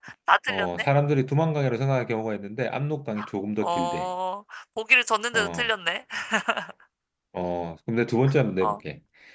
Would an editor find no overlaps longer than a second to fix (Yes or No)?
Yes